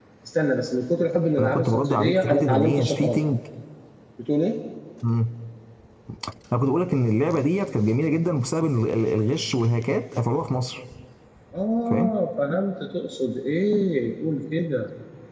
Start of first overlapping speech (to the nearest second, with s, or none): 1 s